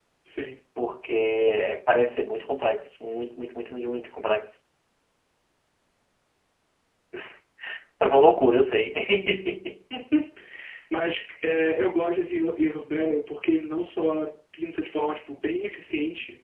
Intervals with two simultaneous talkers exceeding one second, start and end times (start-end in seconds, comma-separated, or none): none